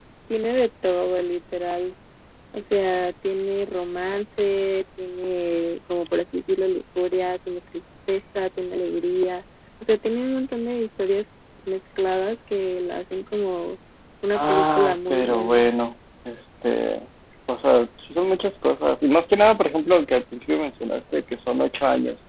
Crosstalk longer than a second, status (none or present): present